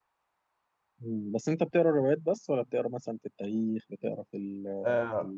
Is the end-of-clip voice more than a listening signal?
Yes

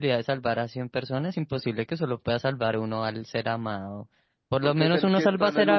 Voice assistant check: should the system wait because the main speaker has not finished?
No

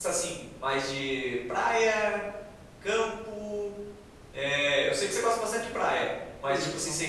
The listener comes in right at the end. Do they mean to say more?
No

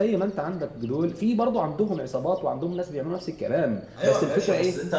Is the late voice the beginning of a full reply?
Yes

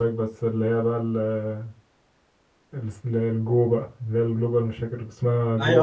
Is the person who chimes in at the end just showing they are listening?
No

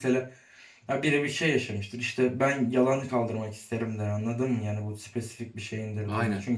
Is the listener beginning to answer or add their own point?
No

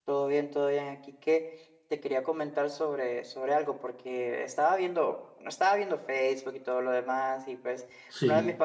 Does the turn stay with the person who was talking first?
Yes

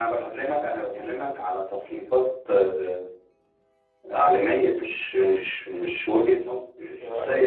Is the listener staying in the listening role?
No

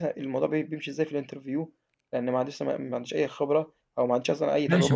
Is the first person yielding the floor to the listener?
Yes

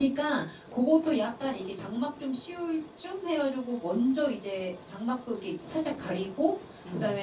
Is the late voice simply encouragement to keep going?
Yes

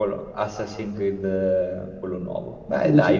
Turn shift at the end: Yes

